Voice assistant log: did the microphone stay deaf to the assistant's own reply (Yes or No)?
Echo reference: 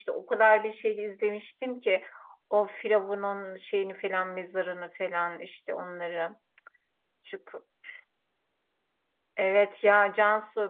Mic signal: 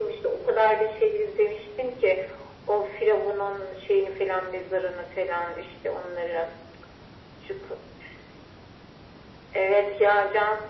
No